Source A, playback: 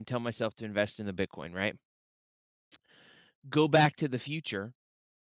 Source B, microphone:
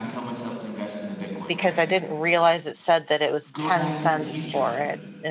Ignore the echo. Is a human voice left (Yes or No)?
Yes